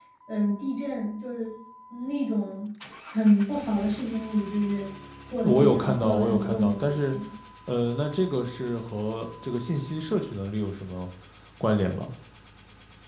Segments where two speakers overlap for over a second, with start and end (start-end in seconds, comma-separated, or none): 5.4-7.2